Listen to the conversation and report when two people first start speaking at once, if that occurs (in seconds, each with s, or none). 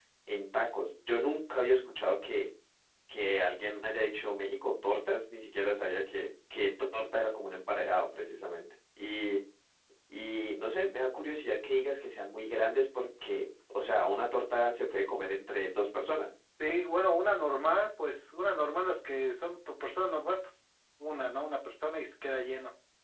none